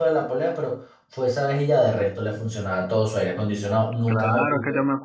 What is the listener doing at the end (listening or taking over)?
taking over